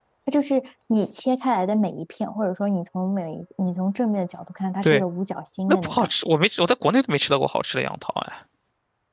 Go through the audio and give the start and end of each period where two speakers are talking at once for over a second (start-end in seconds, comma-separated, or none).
none